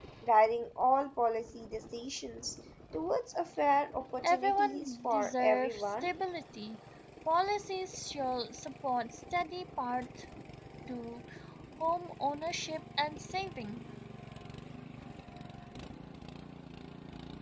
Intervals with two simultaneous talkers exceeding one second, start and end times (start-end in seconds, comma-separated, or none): 4.2-6.1